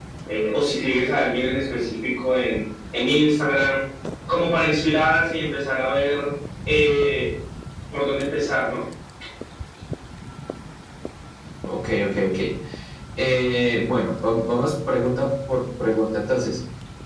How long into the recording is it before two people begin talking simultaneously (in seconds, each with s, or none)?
none